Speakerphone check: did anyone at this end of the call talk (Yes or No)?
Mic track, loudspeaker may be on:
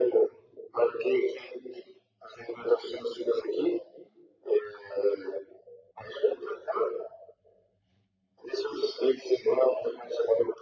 No